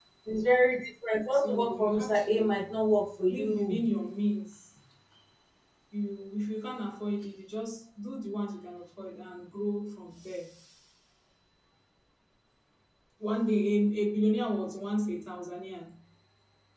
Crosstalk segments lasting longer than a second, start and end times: 1.3-2.7

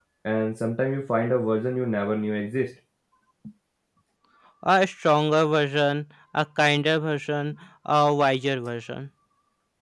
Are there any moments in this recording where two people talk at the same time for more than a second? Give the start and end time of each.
none

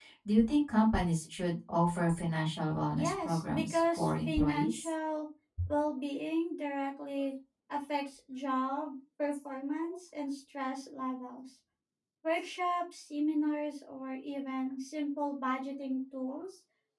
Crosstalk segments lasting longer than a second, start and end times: 3.0-4.9

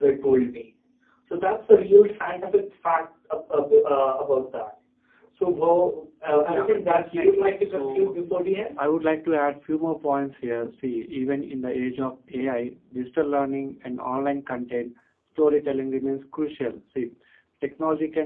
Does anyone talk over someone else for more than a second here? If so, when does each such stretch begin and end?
6.5-8.1

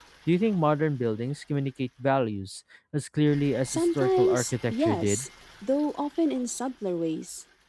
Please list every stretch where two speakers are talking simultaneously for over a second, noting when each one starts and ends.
3.7-5.2

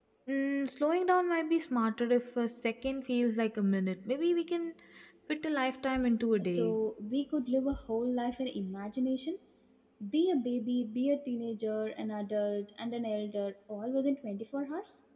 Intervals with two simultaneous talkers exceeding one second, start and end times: none

